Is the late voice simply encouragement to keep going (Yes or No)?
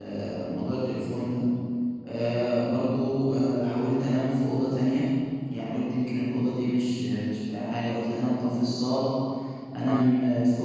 Yes